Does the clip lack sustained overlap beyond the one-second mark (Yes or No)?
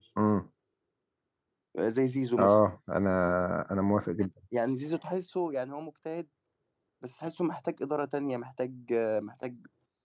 Yes